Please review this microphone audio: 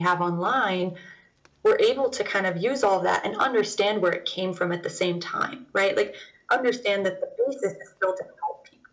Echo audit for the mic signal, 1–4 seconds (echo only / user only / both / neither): echo only